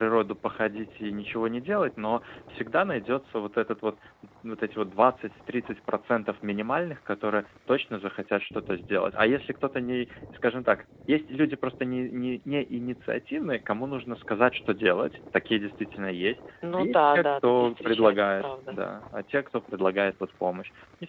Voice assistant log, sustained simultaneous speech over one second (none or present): present